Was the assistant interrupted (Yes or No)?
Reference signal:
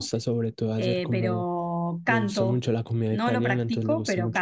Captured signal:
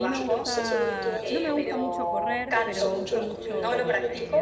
Yes